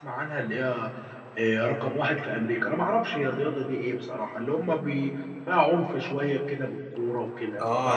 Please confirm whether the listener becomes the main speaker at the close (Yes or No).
Yes